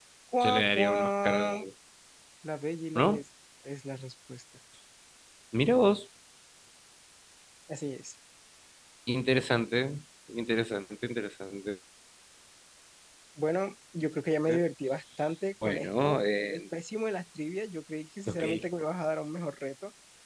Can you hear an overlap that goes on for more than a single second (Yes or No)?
Yes